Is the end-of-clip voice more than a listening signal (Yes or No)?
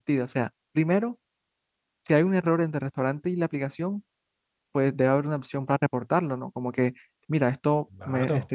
No